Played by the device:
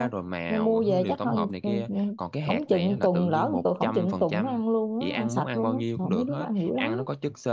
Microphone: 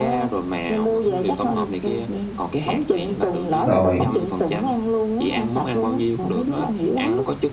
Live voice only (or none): rồi